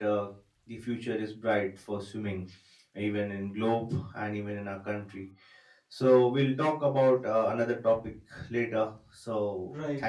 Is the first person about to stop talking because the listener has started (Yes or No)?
Yes